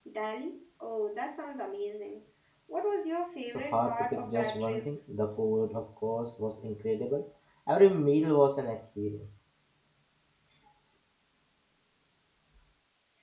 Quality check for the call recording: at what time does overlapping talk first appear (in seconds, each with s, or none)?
3.5 s